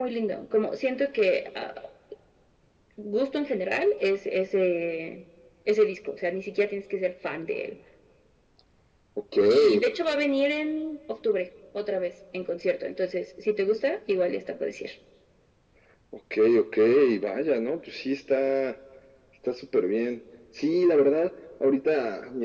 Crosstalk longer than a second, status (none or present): none